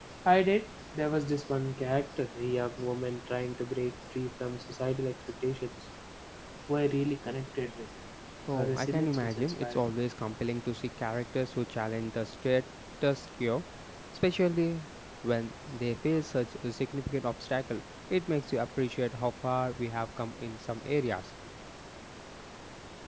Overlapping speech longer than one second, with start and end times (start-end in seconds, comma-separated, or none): 8.5-9.8